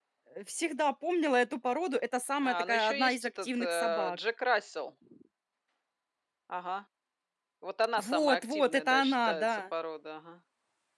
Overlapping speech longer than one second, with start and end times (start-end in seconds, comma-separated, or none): 2.4-4.2, 8.0-9.6